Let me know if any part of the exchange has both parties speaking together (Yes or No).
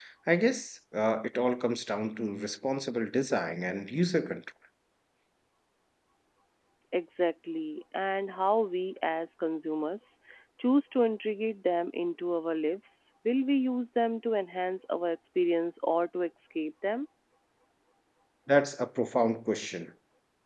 No